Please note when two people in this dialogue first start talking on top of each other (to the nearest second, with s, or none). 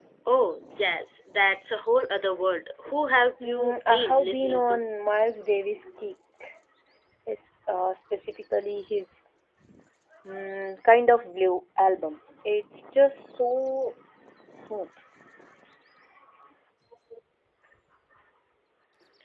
3 s